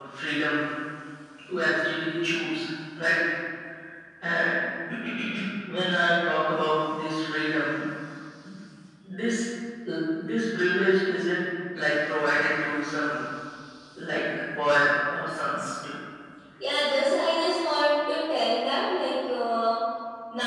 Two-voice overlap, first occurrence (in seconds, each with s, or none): none